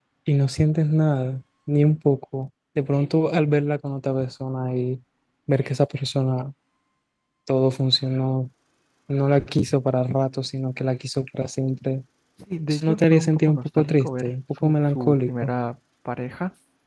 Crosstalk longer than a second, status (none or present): present